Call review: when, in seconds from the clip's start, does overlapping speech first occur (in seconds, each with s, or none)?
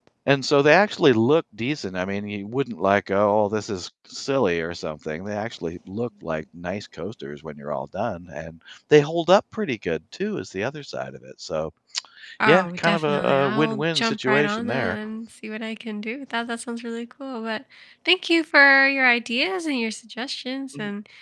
12.5 s